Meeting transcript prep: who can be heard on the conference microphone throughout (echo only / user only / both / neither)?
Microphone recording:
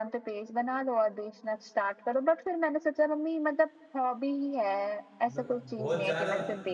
both